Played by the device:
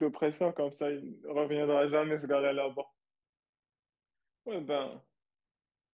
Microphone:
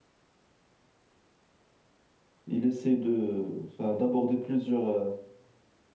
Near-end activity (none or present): present